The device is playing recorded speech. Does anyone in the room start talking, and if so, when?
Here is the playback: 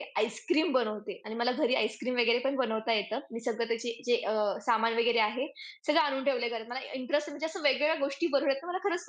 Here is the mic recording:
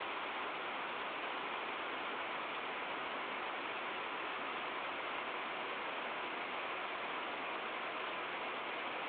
none

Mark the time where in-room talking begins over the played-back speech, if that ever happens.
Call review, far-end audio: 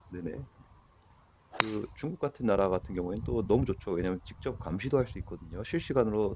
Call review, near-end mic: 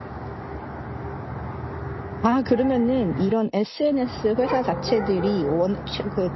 2 s

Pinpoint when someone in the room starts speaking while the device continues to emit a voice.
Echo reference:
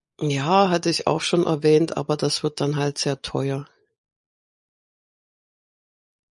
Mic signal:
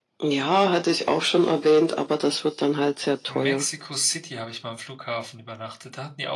3 s

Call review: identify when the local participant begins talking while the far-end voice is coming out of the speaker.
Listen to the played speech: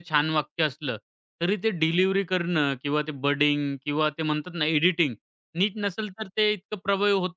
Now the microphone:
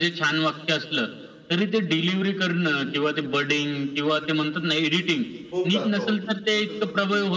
5 s

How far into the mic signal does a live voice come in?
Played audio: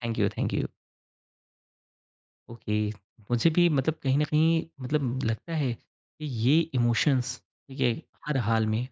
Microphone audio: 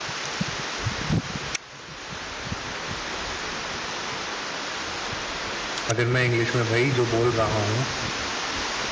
6 s

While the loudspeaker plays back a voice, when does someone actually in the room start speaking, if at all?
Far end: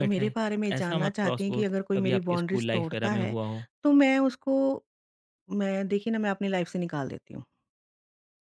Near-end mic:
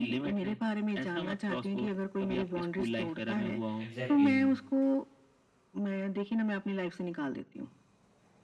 4 s

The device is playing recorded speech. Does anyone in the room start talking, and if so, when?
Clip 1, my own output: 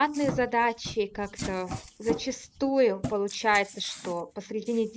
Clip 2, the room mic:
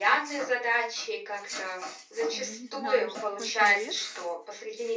2 s

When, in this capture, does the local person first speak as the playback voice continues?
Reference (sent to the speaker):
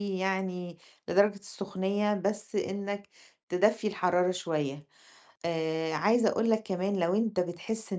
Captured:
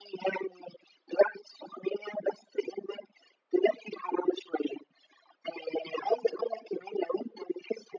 none

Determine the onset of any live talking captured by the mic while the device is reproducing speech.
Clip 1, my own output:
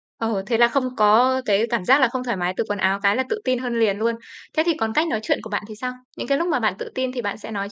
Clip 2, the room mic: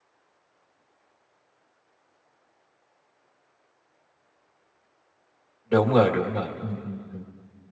6 s

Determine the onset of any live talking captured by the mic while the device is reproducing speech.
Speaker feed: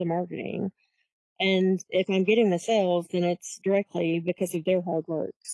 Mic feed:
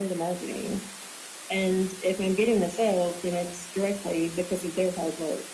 none

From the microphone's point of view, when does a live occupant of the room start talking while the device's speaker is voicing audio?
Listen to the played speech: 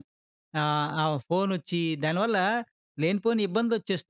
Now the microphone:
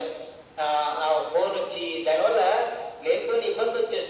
none

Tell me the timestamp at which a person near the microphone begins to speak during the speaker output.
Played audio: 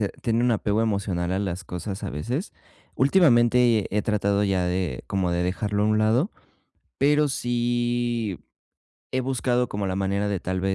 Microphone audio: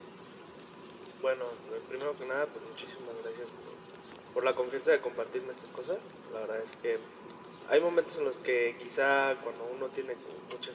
1 s

